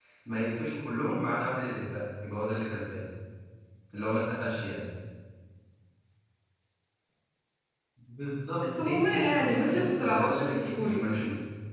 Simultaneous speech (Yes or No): Yes